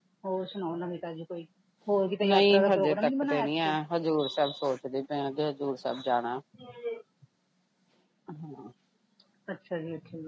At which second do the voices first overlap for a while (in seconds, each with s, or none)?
2.3 s